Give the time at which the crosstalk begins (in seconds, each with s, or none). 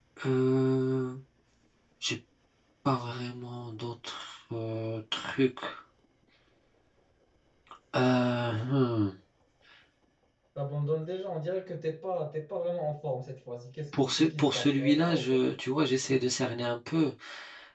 13.9 s